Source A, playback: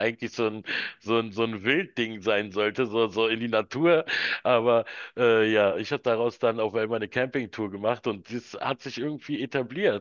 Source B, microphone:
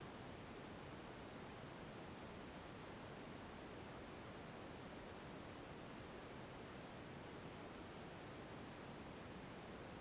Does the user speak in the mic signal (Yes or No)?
No